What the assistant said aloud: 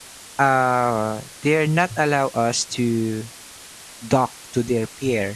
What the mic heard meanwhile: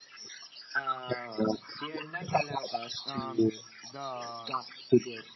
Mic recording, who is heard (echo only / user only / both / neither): both